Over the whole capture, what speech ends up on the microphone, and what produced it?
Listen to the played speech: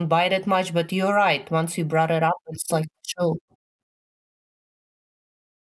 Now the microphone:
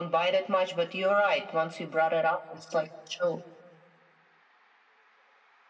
echo only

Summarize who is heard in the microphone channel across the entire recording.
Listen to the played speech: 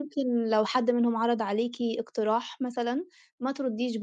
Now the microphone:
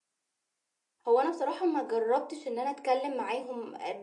user only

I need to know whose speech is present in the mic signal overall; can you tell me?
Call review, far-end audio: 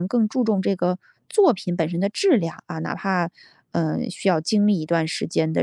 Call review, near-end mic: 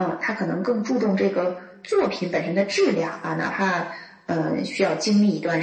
echo only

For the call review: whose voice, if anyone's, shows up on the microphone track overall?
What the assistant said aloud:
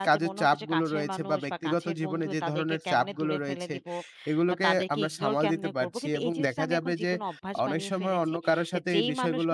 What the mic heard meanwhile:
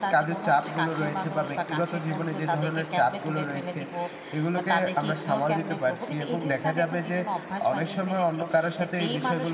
echo only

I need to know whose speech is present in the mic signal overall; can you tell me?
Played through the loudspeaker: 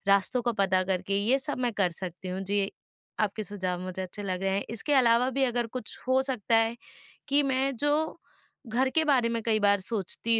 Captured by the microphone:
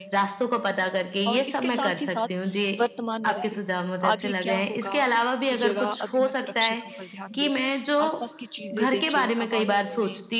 both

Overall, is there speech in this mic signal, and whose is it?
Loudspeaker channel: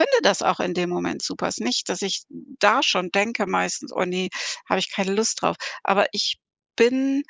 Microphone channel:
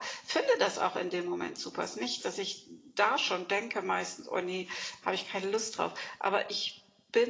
echo only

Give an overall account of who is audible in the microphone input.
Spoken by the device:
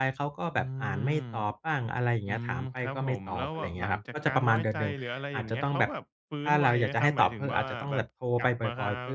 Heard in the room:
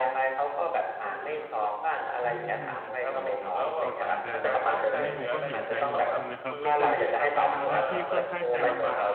both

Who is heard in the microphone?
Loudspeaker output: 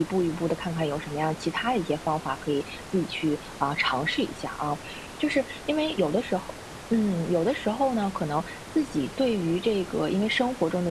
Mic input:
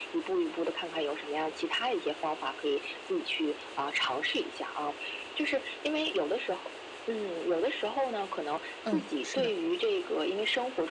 both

